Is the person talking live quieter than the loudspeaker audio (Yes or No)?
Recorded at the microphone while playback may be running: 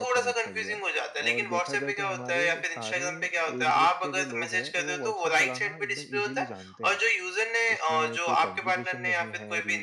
Yes